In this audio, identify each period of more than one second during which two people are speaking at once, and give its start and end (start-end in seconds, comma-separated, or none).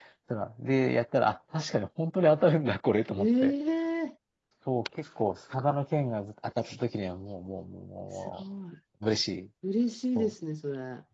none